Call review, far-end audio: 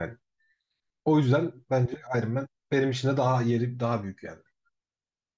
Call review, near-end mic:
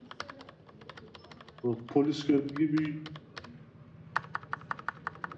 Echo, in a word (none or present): none